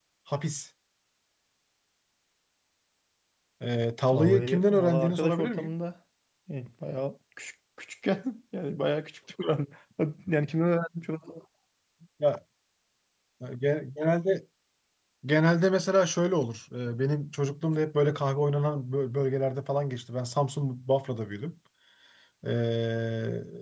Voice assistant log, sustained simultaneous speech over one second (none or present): present